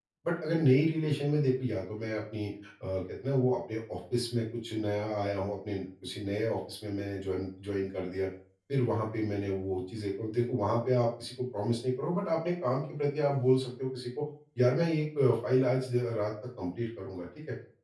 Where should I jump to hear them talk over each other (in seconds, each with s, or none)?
none